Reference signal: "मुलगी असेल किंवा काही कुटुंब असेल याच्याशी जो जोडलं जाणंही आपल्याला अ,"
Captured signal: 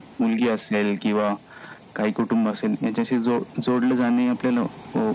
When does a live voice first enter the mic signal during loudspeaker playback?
none

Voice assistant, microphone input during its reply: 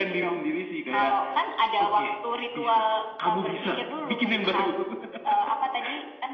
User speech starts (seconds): none

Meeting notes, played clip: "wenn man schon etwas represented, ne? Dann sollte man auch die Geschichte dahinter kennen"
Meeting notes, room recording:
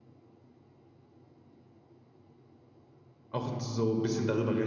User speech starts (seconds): 3 s

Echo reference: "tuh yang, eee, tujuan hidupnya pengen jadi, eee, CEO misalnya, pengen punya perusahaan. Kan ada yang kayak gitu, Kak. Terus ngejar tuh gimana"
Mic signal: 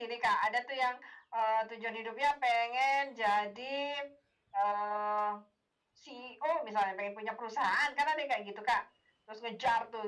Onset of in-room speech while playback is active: none

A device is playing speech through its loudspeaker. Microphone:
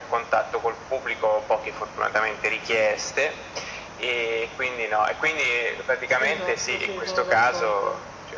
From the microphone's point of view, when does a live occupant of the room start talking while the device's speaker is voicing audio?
6 s

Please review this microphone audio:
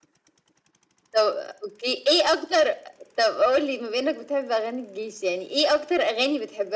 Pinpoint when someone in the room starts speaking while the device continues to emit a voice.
none

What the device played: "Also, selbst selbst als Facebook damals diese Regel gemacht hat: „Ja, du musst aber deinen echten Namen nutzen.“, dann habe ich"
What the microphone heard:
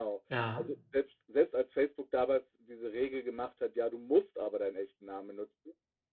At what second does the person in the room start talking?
0 s

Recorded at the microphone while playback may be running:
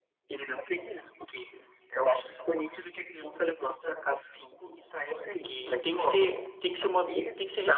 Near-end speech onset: 5 s

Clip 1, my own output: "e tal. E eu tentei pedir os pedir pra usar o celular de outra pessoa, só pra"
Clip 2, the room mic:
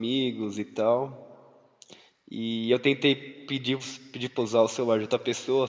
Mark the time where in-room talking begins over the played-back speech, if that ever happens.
none

